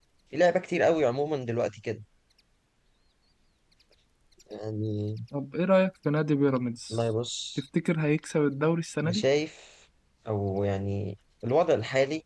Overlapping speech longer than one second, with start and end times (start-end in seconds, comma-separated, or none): none